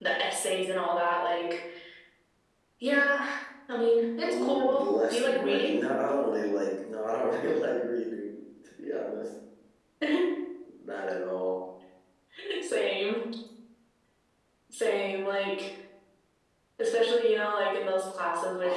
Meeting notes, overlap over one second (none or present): present